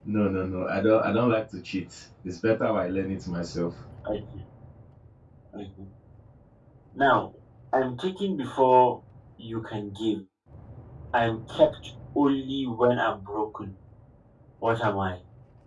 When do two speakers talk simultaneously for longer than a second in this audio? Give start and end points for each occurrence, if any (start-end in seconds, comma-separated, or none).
none